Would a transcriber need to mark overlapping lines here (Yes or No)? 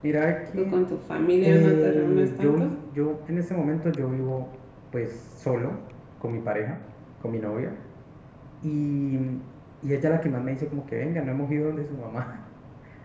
Yes